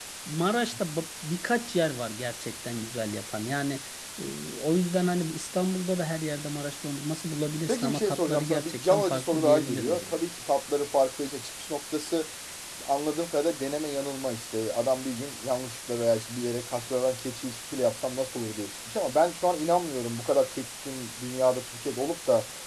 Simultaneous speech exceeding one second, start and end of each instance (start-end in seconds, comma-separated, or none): 7.7-10.2